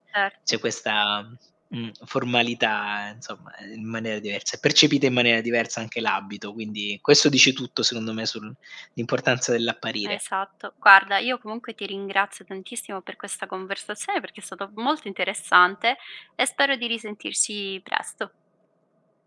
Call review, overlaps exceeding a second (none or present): none